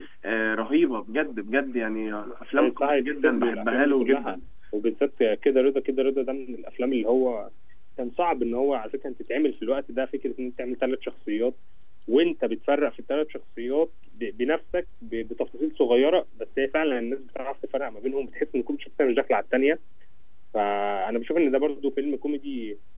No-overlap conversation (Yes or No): No